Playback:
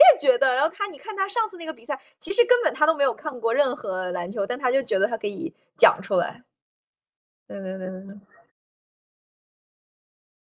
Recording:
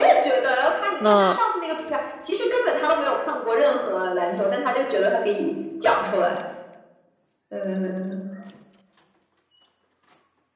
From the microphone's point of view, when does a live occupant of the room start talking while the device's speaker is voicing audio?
1.0 s

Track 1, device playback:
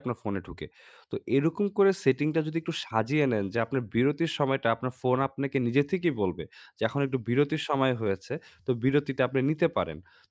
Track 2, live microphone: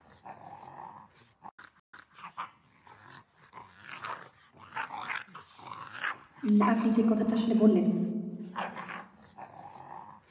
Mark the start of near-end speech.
6.5 s

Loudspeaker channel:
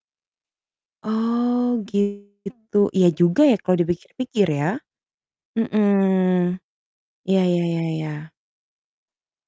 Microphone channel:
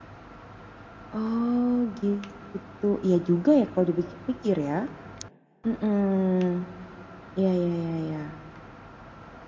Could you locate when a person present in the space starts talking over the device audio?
none

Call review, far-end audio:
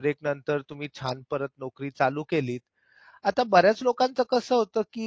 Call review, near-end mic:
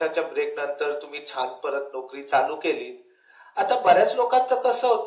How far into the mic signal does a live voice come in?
none

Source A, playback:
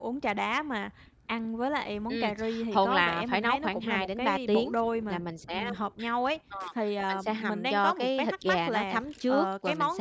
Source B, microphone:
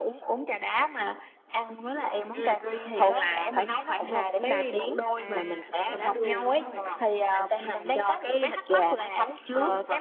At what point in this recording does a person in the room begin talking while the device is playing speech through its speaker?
5.2 s

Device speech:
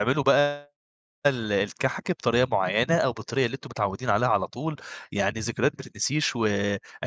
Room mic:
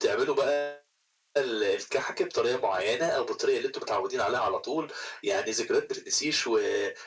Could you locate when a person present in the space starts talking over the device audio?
none

